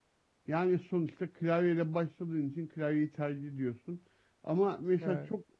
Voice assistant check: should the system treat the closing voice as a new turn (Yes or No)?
No